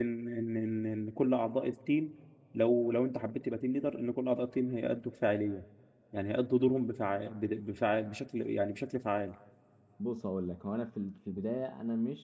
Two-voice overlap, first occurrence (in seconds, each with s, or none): none